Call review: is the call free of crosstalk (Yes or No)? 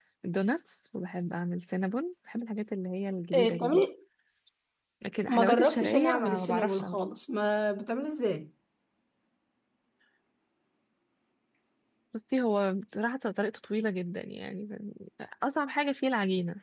No